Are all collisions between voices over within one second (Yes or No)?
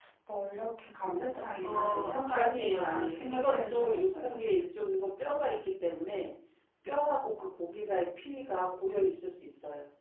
No